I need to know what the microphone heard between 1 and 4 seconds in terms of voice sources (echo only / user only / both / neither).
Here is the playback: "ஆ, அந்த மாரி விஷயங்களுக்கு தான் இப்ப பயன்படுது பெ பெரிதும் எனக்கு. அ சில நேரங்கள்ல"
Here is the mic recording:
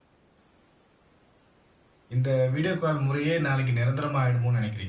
user only